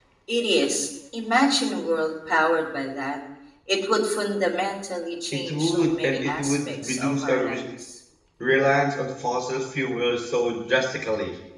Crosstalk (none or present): present